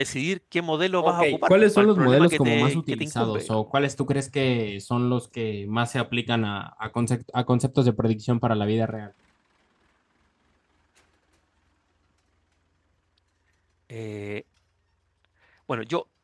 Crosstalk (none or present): present